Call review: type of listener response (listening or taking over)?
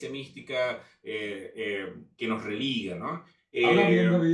taking over